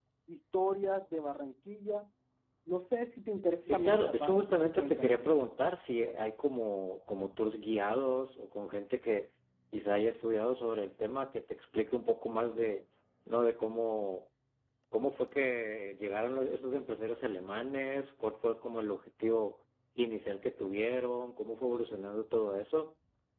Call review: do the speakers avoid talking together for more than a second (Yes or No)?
No